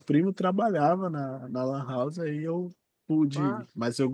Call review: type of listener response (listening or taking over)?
listening